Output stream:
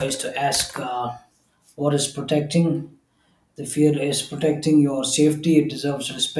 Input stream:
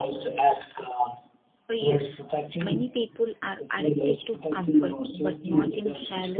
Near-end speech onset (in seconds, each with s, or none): 1.7 s